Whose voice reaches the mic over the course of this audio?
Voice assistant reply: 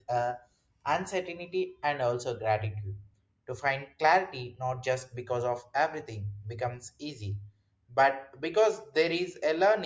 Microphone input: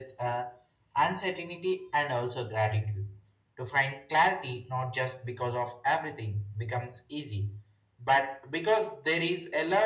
echo only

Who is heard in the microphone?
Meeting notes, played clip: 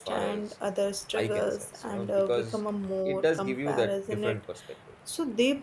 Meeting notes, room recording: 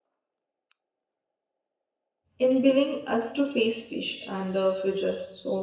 user only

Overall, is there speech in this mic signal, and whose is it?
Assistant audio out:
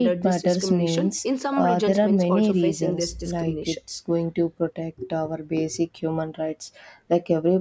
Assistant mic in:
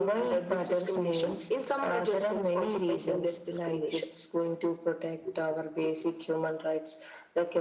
echo only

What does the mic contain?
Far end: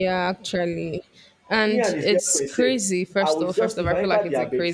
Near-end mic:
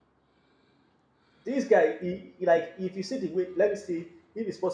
user only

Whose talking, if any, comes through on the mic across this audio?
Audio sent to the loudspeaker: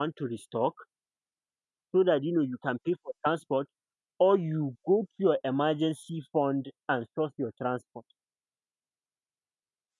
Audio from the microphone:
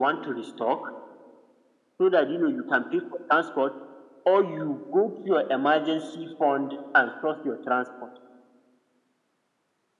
echo only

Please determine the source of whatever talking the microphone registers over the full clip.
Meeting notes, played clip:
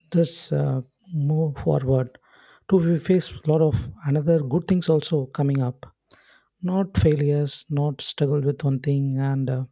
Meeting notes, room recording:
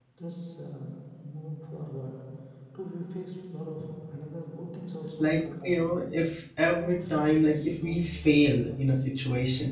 both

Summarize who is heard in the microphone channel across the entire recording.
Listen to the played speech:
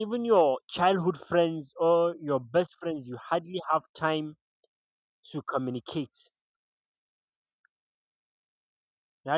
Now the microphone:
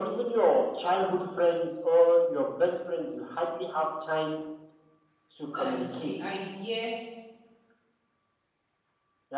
both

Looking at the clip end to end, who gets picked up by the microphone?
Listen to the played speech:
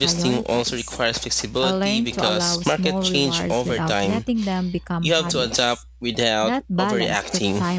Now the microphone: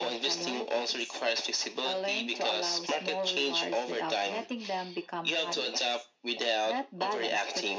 echo only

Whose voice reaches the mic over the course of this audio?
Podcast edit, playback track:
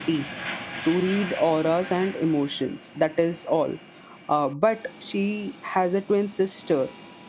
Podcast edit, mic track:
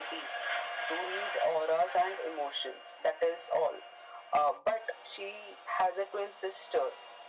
echo only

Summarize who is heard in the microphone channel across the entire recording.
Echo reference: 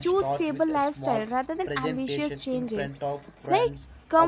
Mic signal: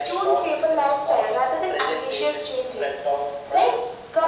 echo only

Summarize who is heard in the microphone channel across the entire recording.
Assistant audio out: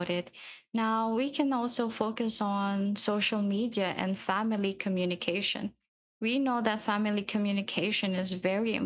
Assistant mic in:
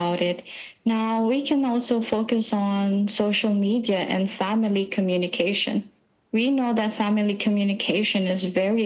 echo only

